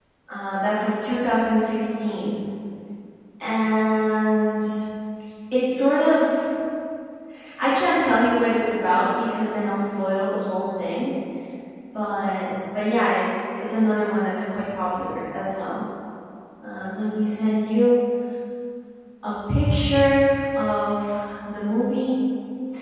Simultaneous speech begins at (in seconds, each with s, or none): none